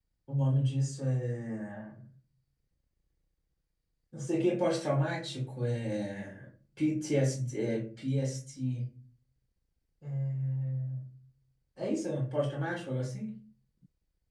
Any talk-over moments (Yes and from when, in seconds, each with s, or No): No